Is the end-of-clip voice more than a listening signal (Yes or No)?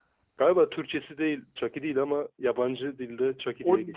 Yes